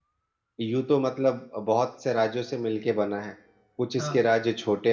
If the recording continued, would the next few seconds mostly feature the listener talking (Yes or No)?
No